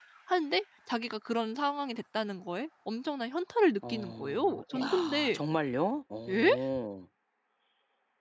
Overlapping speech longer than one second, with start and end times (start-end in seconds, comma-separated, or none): 3.9-5.4